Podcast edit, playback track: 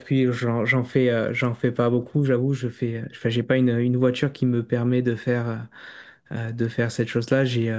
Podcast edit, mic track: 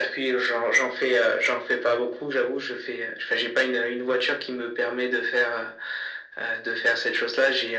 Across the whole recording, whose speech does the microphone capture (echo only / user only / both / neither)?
echo only